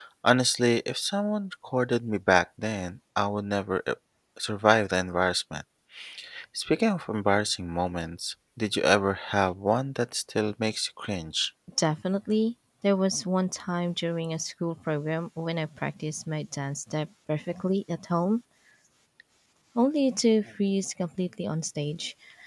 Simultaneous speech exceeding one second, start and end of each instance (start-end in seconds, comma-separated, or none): none